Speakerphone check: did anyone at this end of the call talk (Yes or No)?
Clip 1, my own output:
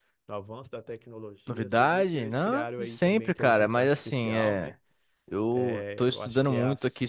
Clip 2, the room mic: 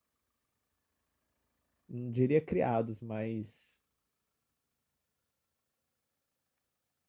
Yes